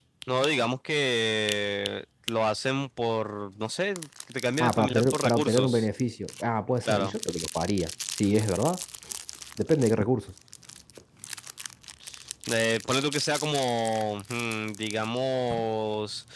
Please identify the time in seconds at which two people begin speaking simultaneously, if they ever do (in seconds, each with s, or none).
4.6 s